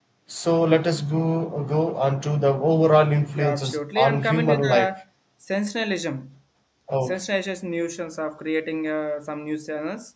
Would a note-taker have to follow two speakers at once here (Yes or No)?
Yes